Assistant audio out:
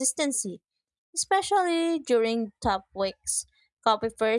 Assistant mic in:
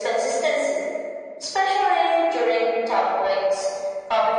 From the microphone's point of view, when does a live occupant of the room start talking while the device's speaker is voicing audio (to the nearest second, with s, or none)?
none